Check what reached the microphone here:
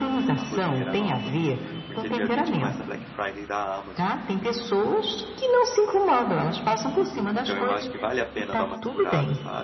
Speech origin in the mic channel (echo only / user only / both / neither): both